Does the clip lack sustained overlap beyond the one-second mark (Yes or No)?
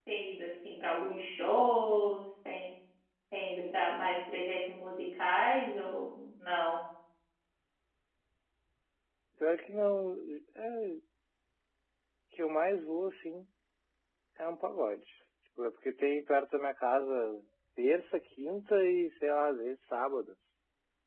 Yes